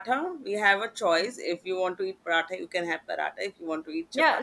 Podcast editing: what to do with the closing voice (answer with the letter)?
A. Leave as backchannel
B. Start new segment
B